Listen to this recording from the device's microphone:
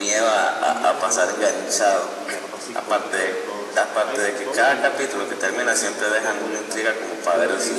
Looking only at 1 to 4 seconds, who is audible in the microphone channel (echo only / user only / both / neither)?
both